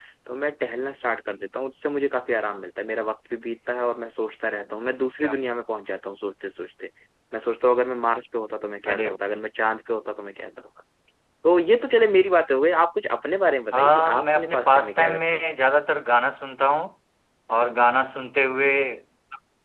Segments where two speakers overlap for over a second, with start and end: 13.7-15.5

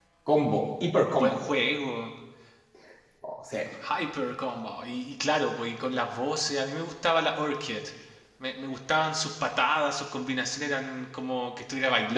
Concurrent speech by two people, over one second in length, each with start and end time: none

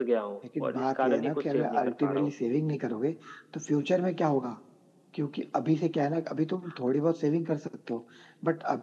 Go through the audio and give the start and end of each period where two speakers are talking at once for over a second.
0.6-2.3

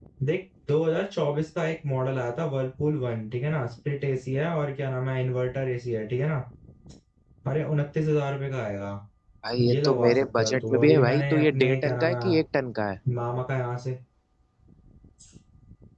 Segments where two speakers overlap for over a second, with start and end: 9.7-12.4

